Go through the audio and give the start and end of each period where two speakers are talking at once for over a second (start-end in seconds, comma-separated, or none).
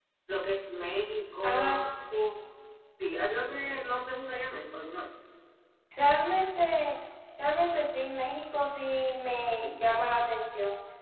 none